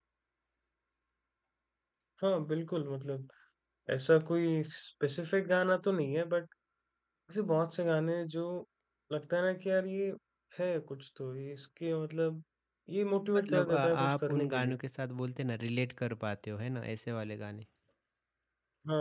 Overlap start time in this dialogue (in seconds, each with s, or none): 13.3 s